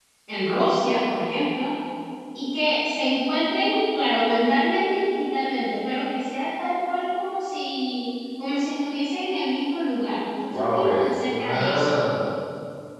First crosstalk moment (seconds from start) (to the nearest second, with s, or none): 10 s